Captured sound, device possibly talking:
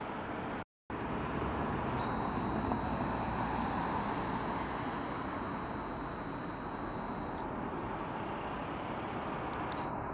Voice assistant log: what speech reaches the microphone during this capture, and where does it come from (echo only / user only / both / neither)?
neither